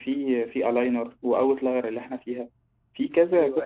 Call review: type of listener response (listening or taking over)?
listening